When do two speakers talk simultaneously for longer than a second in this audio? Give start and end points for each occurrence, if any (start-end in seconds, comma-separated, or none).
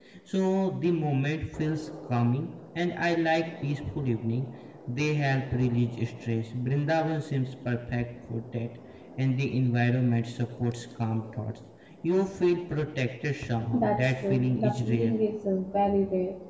13.7-15.1